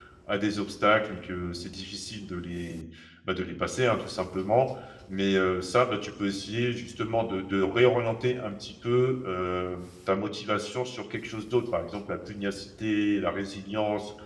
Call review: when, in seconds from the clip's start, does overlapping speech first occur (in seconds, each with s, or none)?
none